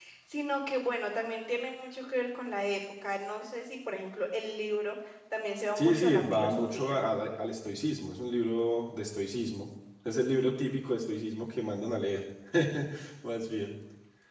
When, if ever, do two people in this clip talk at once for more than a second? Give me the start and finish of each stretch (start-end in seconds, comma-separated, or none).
5.8-7.0